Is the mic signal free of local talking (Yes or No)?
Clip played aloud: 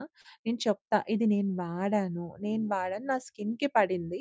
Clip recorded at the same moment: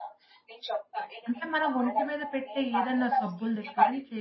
No